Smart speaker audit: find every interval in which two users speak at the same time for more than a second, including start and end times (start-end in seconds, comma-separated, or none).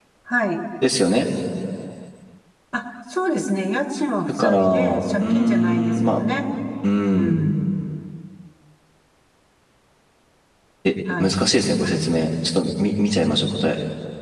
4.4-6.2